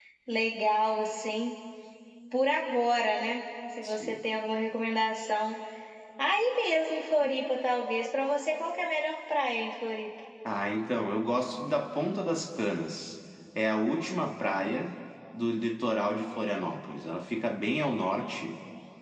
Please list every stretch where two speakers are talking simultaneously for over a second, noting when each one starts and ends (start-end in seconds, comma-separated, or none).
none